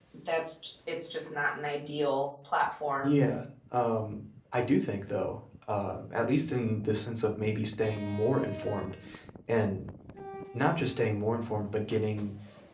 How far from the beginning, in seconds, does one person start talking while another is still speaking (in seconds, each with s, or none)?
none